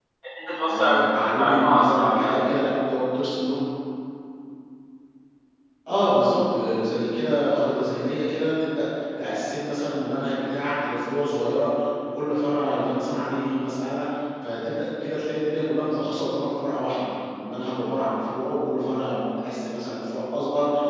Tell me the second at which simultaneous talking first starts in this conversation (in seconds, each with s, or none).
0.7 s